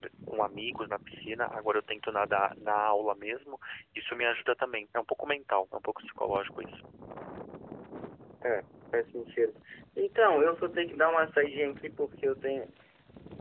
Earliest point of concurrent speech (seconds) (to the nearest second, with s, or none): none